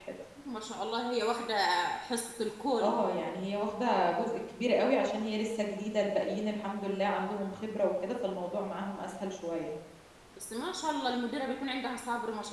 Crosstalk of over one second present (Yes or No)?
No